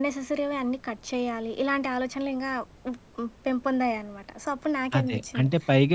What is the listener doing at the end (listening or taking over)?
taking over